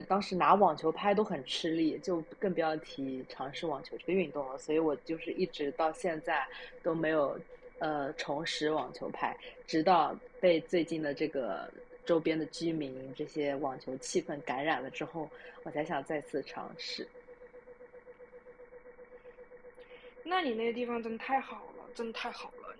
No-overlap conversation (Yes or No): Yes